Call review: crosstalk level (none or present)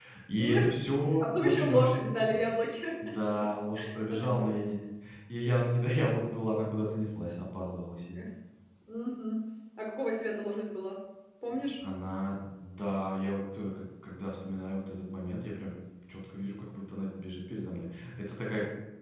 present